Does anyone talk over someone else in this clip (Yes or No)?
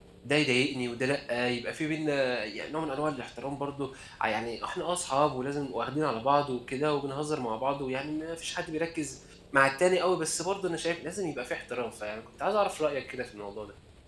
No